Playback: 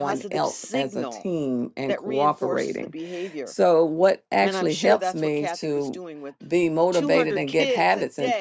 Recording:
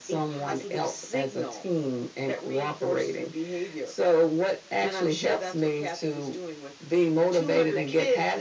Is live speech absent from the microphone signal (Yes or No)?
Yes